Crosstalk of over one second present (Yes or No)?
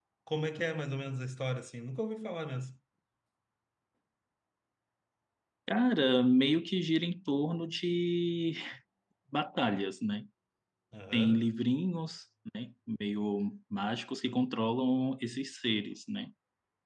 No